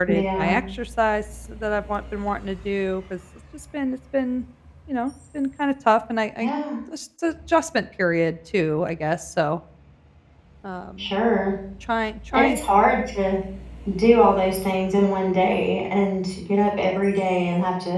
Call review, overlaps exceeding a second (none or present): none